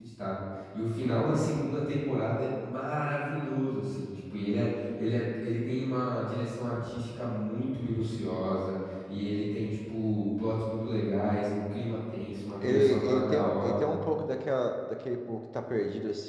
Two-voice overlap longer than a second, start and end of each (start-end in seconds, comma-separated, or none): 12.6-13.9